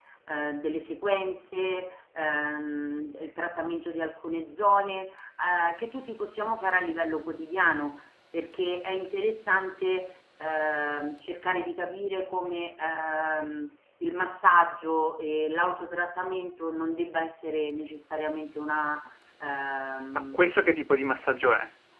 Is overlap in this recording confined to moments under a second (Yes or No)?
Yes